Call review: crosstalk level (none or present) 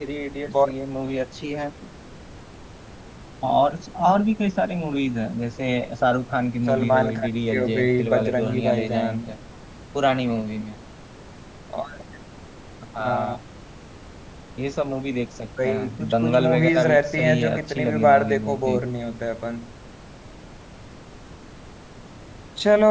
present